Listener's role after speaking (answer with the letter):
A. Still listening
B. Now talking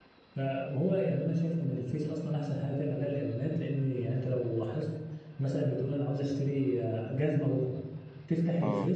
A